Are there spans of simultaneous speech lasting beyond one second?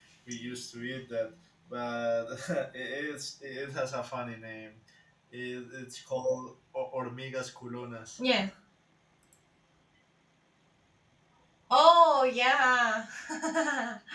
No

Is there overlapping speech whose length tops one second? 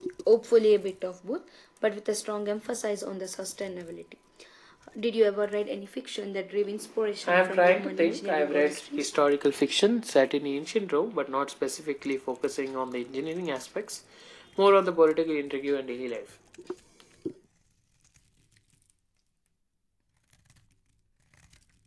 Yes, from 7.2 s

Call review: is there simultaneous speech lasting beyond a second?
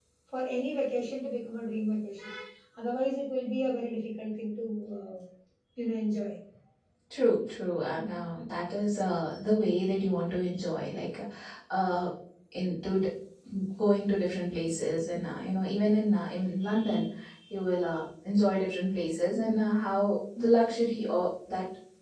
No

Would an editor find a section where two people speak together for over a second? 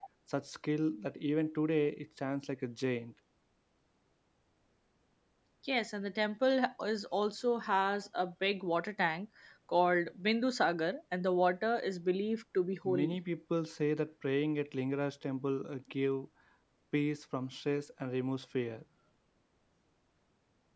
No

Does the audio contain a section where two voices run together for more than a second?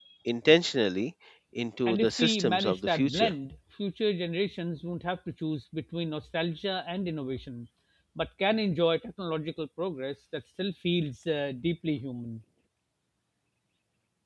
Yes, from 1.9 s

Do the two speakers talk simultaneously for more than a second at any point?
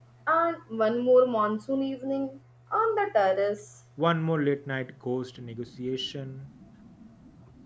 No

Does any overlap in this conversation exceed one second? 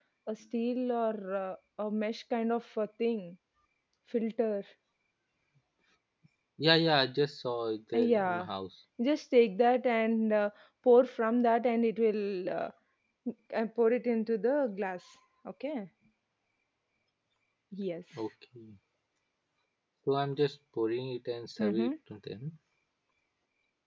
No

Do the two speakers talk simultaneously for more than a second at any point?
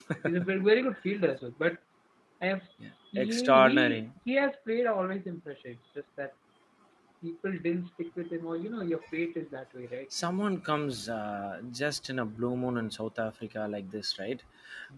Yes, from 2.8 s

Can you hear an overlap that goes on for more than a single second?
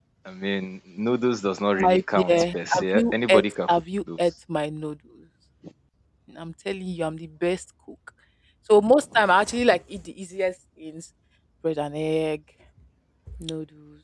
Yes, from 1.8 s

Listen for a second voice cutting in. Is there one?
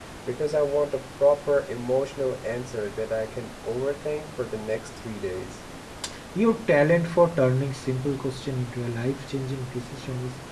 No

